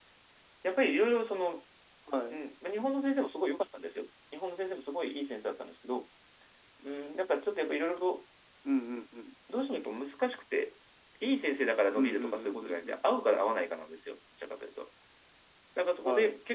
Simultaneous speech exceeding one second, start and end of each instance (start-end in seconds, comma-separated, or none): 11.9-13.5